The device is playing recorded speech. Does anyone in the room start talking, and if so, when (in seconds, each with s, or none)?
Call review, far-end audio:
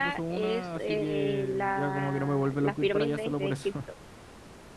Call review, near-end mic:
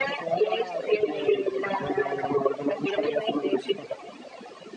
none